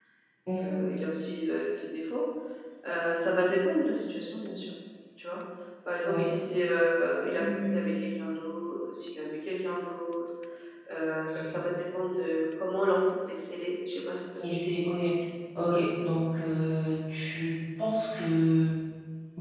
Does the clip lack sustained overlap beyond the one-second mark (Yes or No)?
Yes